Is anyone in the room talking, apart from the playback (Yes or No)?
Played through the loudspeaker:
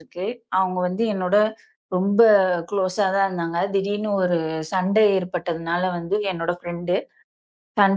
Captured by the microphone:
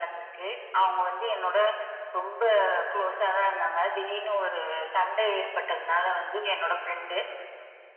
No